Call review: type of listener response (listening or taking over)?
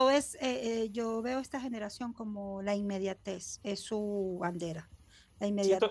listening